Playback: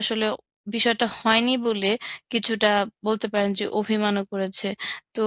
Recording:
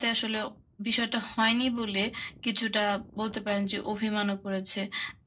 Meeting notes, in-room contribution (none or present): none